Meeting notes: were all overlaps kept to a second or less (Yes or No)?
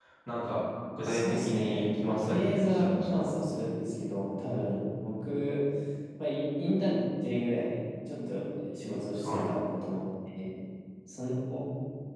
No